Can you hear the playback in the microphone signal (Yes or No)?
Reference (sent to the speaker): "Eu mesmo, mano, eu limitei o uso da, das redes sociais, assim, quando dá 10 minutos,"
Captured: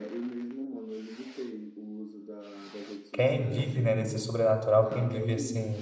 Yes